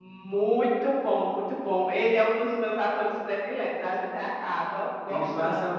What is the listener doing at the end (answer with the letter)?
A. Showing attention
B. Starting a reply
B